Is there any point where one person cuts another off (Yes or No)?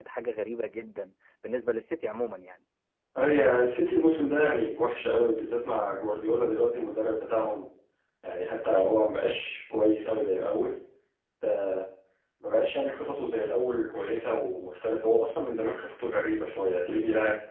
No